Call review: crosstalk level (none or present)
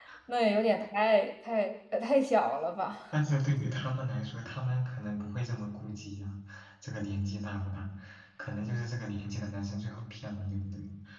none